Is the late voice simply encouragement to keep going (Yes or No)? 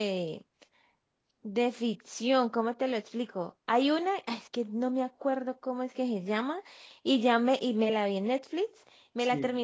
Yes